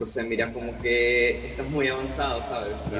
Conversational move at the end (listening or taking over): taking over